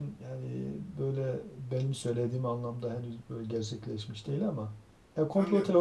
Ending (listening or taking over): listening